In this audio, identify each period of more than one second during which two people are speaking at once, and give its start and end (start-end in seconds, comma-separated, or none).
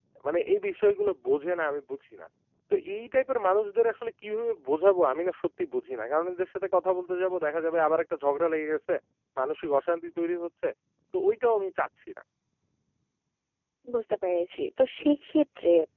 none